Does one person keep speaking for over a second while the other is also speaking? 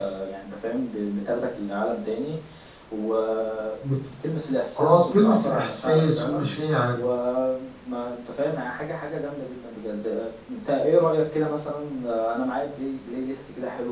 Yes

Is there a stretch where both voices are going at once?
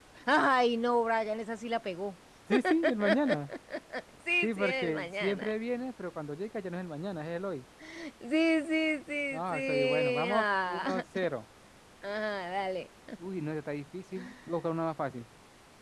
Yes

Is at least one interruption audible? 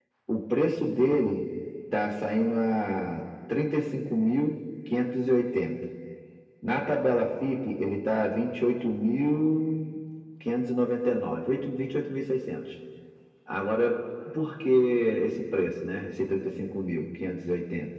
No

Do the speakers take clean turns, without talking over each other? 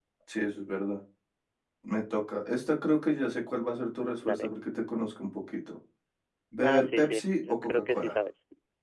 No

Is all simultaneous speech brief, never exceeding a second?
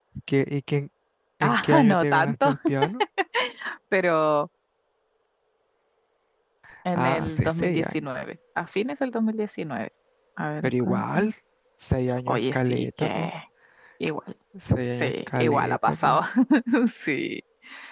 No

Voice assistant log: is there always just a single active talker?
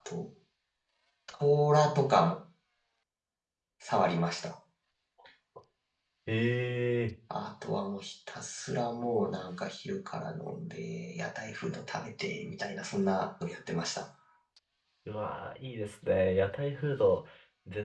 Yes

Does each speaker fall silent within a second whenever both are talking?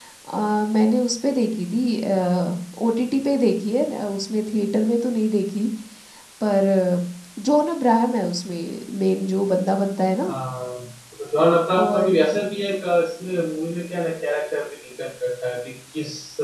Yes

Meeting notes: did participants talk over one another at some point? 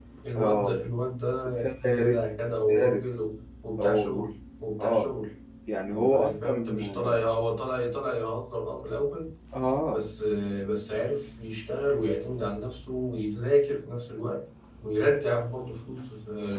Yes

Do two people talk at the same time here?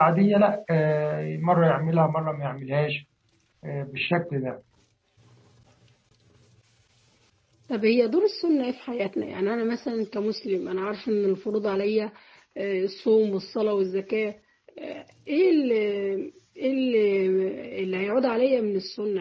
No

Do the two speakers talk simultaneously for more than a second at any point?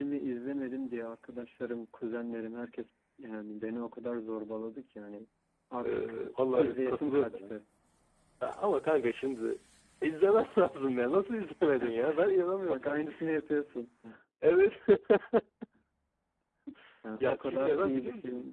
Yes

